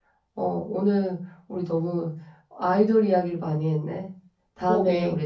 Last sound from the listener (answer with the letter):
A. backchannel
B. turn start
A